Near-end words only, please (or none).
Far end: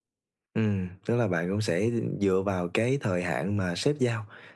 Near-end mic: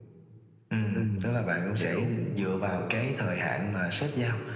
Ừm, mình hiểu.